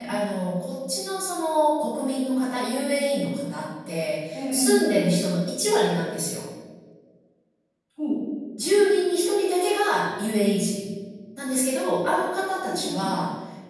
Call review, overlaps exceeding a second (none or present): none